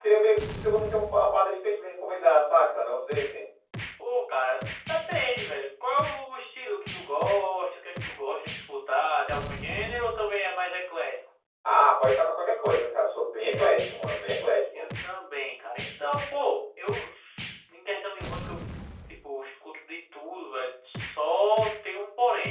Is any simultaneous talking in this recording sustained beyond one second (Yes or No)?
No